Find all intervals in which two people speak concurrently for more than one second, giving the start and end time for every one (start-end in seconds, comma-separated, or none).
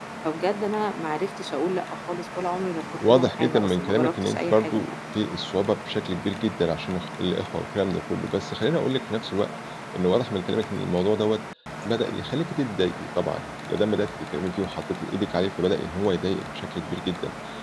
3.1-4.8